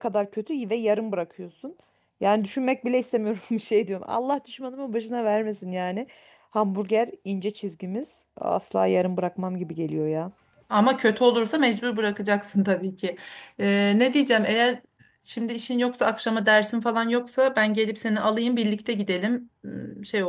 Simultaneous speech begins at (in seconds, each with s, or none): none